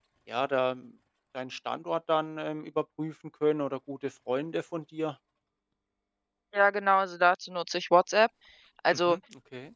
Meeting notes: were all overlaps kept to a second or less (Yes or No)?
Yes